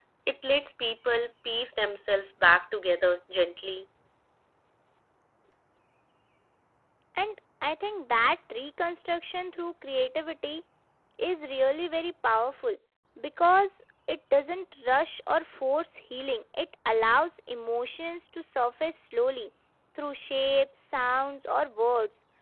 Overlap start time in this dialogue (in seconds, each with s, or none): none